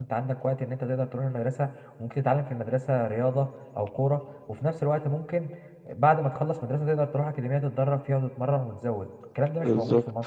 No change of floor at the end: No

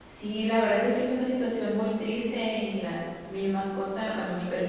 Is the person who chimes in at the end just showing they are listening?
Yes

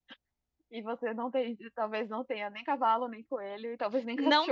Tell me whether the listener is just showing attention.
No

